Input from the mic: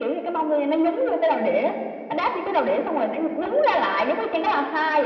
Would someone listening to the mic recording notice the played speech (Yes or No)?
Yes